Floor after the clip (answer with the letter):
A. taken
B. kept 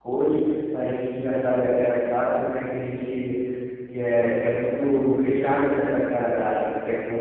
A